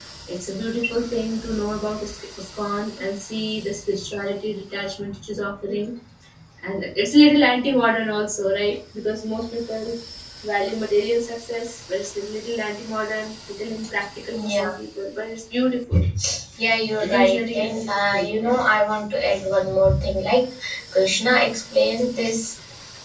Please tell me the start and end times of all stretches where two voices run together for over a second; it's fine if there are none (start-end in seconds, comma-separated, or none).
17.0-18.6